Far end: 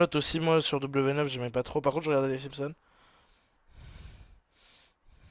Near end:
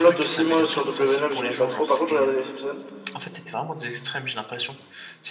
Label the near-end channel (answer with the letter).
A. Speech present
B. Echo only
A